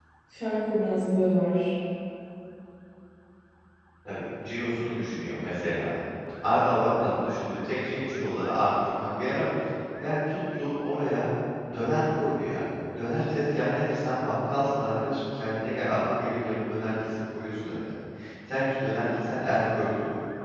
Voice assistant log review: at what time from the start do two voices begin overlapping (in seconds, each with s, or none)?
none